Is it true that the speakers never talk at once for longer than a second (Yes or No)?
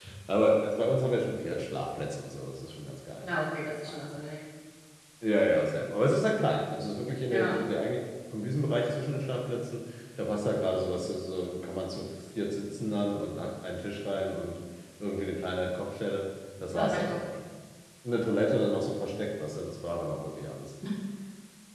Yes